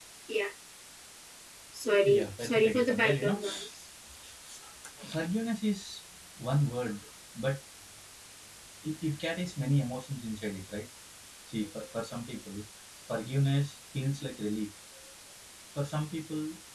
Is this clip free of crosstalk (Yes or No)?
No